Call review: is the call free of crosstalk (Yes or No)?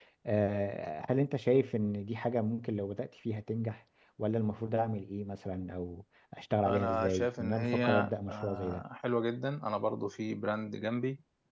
No